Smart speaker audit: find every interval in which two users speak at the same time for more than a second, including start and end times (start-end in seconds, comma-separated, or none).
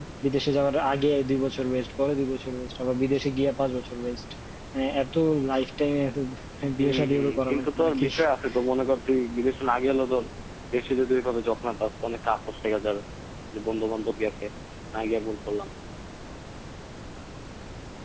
6.8-8.1